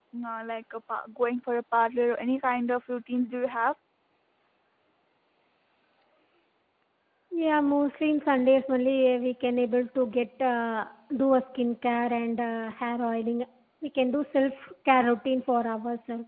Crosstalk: none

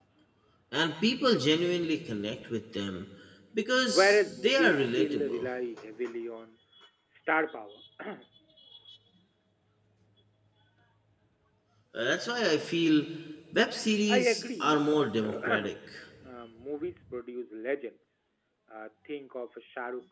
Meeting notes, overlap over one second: present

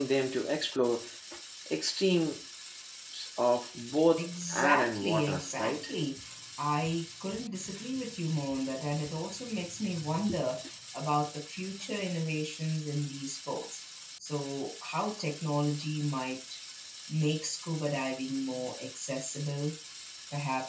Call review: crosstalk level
present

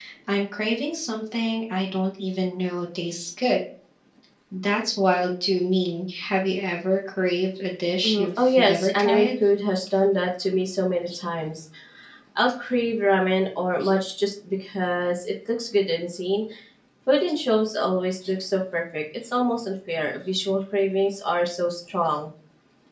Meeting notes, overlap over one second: present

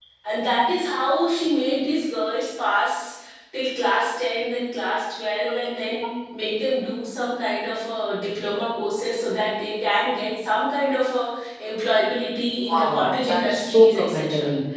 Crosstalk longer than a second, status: present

